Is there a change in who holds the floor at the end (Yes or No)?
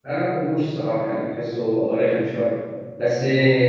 No